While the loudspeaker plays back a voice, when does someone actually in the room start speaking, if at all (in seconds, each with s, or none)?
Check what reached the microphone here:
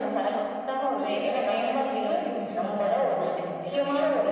none